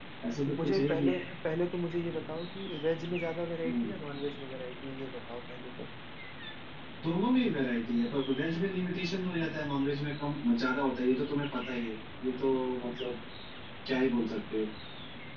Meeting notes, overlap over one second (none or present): none